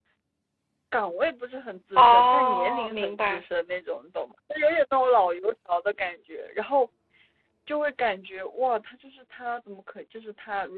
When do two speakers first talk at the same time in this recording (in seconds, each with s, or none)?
2.0 s